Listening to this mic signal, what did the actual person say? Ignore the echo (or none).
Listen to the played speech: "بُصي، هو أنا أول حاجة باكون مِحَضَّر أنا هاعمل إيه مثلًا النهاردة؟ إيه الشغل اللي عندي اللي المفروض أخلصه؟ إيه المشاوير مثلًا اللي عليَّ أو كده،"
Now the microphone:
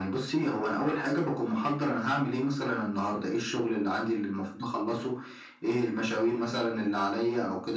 none